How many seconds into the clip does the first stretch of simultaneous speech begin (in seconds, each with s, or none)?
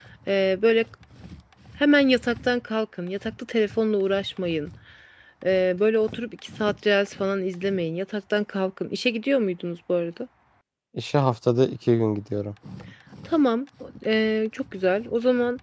none